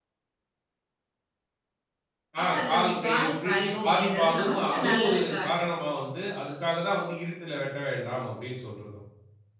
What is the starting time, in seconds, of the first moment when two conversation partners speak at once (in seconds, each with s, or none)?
2.4 s